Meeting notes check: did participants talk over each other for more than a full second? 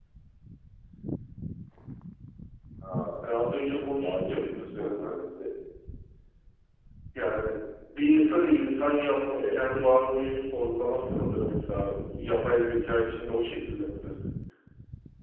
Yes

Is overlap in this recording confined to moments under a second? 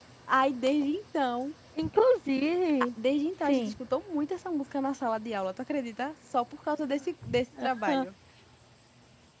Yes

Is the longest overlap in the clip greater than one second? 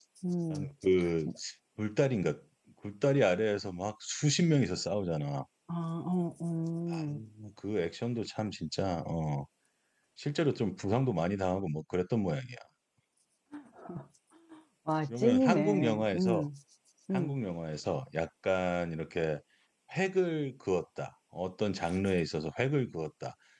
Yes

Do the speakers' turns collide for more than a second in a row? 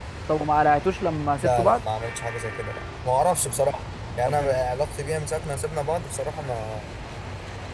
No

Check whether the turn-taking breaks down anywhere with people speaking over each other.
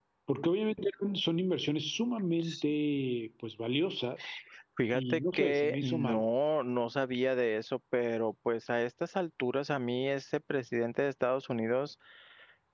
Yes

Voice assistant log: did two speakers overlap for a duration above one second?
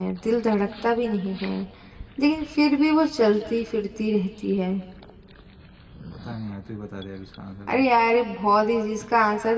No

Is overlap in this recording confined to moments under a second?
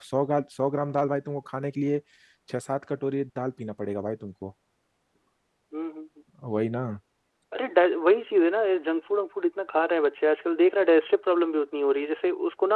Yes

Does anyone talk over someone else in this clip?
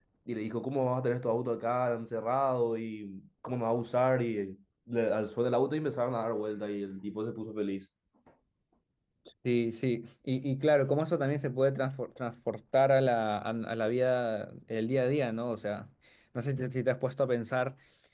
No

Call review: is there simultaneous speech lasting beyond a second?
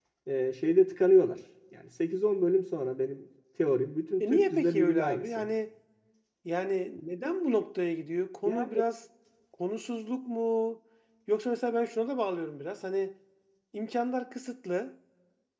Yes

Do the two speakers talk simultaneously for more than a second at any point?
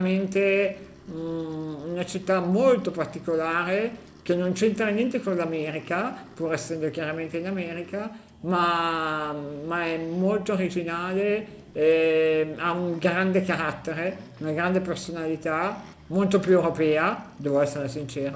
No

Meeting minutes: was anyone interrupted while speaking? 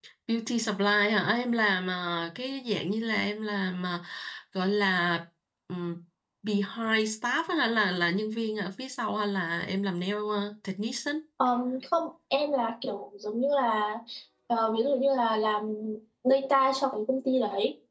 No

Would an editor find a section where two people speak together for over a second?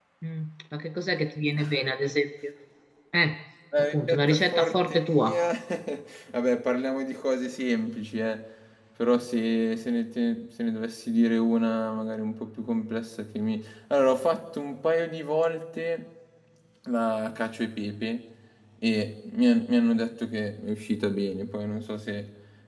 Yes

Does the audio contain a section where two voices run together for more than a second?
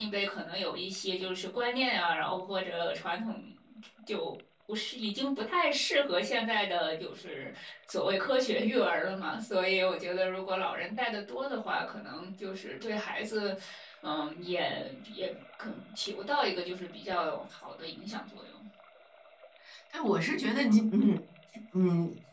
No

